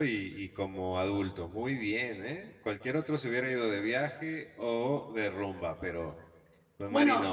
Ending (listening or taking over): taking over